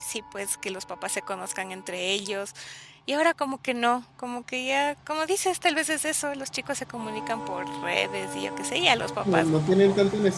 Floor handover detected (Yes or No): Yes